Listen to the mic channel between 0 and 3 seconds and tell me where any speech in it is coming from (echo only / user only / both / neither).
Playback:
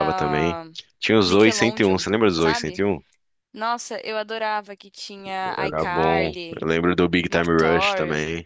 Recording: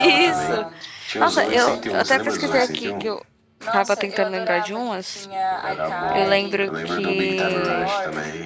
both